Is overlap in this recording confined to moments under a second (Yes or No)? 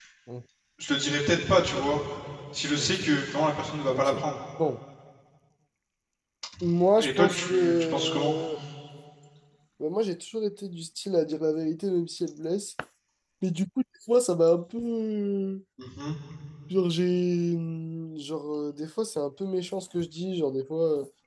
No